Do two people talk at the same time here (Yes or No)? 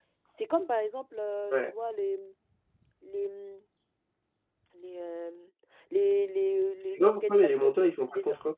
Yes